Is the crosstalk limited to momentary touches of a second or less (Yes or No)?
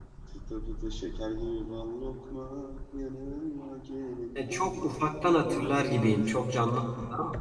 No